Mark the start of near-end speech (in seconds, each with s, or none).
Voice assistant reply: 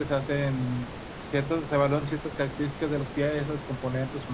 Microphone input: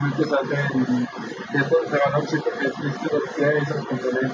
none